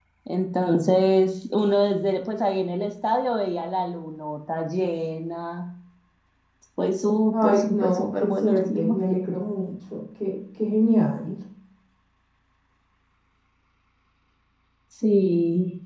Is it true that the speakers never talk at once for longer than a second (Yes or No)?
No